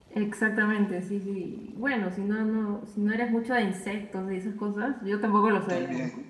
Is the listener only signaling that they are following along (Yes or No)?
Yes